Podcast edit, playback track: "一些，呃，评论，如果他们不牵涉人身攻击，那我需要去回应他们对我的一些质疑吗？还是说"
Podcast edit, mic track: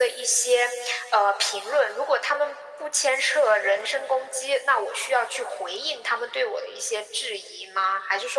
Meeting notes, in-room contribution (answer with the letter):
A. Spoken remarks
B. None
B